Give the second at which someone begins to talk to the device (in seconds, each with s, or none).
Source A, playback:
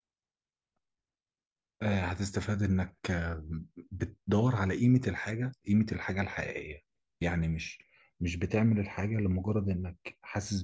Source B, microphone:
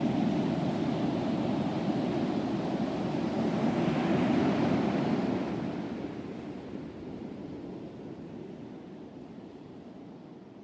none